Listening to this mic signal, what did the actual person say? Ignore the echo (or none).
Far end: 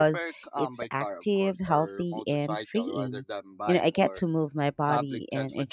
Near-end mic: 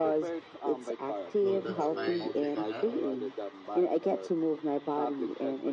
So that's my take on that.